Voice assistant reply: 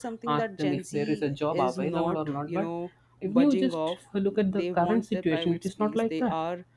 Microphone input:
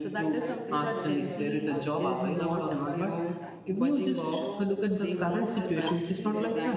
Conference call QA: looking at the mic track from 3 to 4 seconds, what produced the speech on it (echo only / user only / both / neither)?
both